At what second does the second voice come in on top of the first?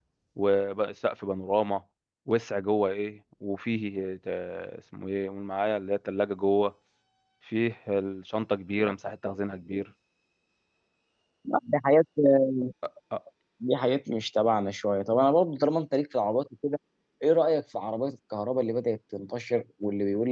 none

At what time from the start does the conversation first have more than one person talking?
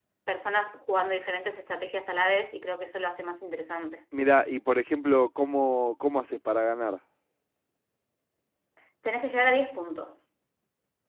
none

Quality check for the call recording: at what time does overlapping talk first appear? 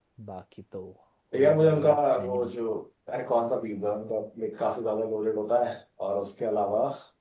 1.3 s

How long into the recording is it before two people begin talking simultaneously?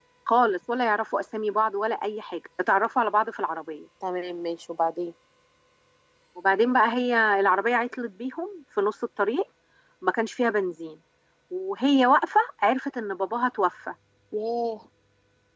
none

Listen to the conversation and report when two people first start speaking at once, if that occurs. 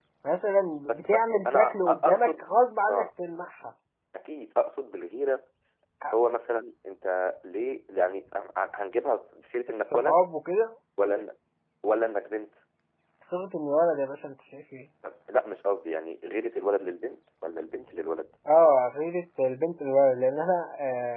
0.9 s

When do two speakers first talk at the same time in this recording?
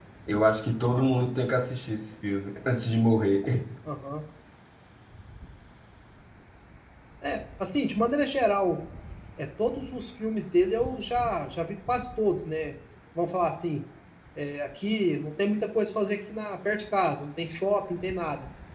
none

